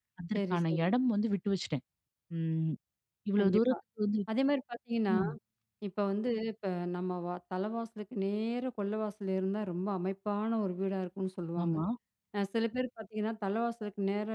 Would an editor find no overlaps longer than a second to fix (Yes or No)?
Yes